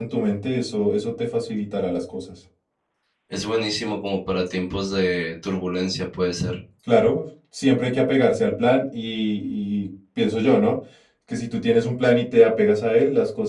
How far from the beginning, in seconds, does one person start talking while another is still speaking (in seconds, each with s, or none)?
none